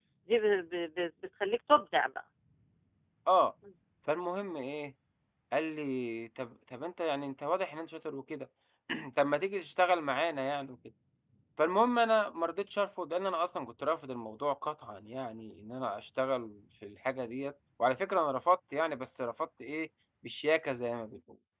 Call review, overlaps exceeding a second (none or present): none